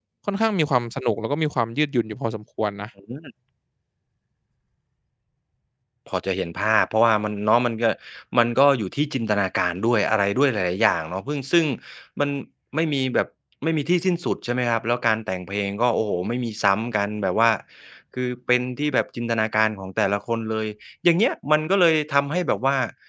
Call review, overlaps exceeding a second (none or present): none